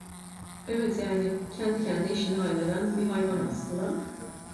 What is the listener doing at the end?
taking over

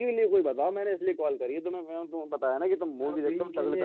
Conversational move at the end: taking over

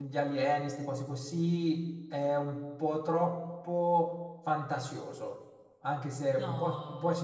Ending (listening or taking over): listening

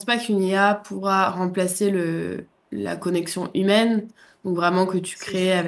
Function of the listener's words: listening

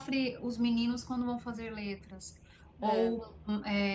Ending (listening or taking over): listening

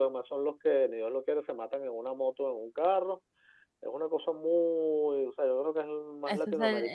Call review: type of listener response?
taking over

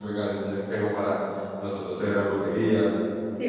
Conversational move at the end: taking over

